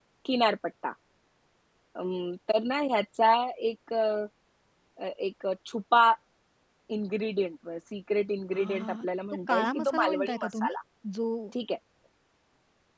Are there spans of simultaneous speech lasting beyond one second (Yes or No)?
Yes